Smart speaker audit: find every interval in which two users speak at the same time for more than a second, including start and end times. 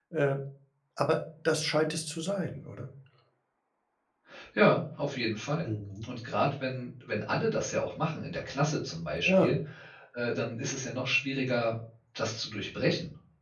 none

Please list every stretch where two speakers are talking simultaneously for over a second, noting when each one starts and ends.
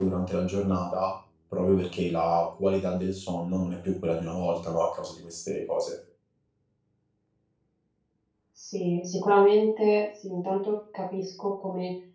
none

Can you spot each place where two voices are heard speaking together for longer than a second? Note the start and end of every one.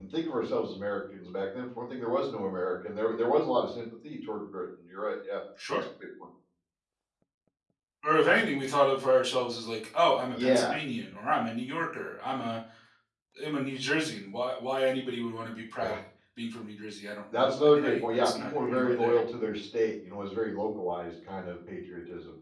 17.3-19.2

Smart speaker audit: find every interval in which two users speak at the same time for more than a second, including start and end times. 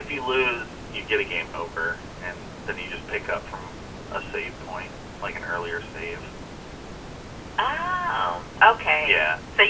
none

